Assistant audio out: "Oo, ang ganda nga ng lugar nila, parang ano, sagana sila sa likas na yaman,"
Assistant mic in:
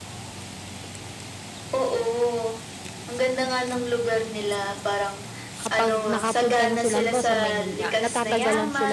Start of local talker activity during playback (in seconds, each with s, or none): 5.6 s